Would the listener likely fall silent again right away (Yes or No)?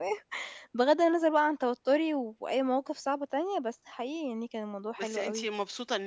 No